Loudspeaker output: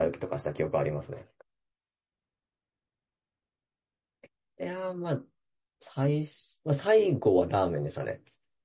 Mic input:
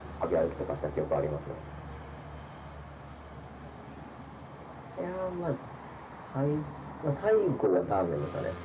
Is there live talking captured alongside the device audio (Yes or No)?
No